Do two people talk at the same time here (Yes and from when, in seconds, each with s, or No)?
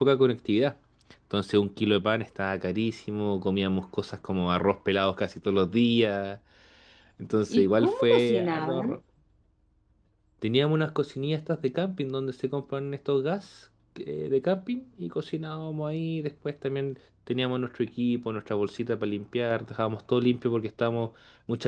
Yes, from 7.5 s